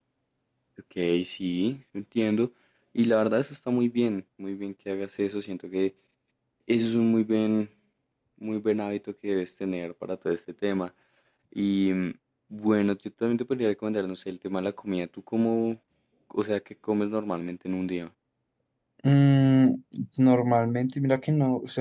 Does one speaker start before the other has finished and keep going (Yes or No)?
No